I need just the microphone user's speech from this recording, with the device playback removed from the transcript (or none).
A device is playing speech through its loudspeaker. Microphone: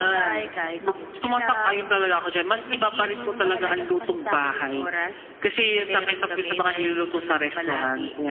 none